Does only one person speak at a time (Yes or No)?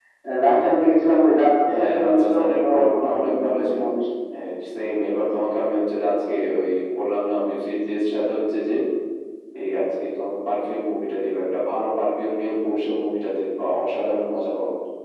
No